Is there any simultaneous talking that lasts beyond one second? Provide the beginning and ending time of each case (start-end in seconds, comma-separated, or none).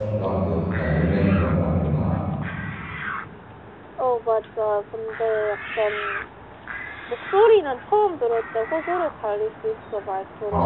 none